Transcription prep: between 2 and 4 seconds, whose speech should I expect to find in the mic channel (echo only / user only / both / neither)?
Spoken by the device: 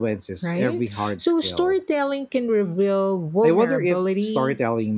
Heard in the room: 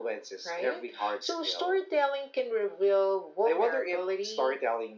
echo only